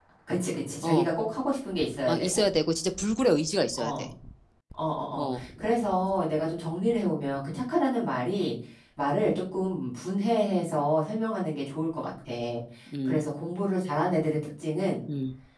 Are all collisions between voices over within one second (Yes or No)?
Yes